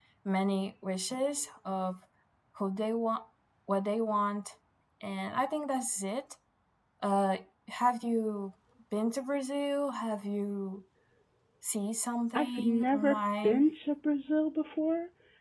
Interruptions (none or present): present